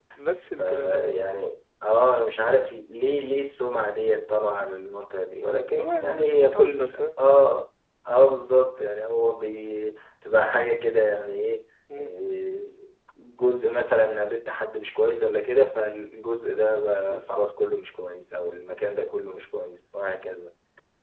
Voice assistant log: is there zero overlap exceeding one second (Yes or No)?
No